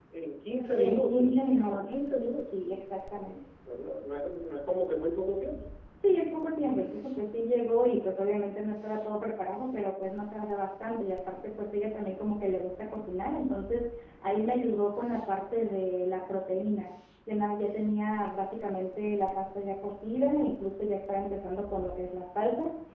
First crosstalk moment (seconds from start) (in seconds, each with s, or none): 0.8 s